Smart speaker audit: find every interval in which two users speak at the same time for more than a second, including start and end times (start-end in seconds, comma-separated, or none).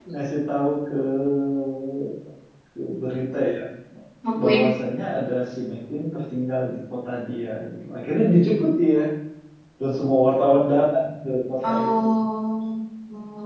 none